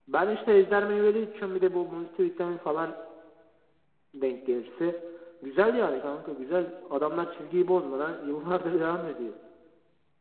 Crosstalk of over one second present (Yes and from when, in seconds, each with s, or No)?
No